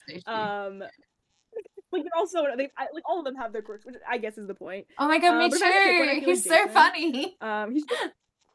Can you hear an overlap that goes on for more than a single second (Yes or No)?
Yes